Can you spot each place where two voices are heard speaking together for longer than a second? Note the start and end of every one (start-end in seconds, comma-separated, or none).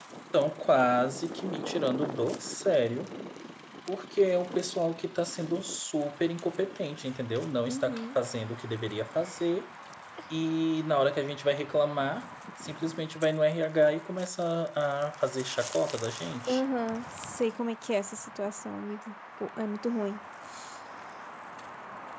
none